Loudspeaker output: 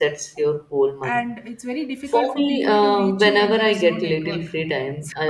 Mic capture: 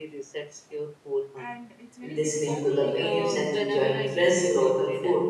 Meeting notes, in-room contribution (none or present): present